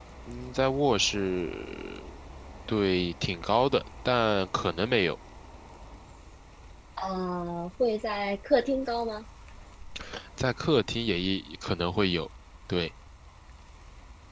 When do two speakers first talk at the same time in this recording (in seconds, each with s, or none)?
none